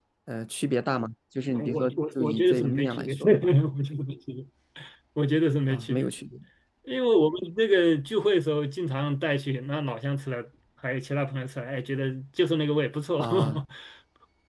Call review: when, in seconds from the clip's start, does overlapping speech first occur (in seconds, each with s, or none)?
1.6 s